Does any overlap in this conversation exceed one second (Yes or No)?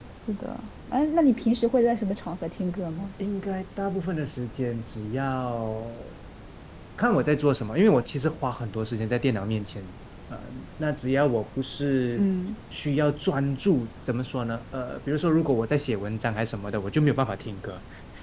No